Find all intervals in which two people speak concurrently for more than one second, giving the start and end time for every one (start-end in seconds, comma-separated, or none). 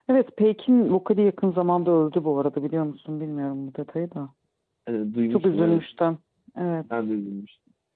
none